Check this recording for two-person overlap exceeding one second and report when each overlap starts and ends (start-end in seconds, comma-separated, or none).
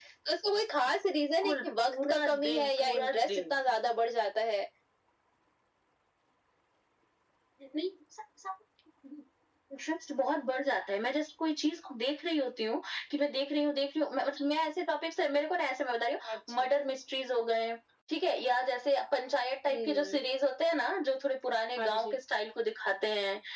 1.4-3.5